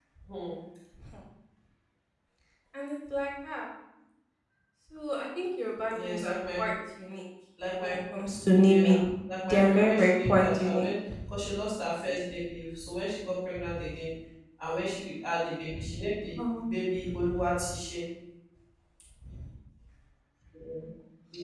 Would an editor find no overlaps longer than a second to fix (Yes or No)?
No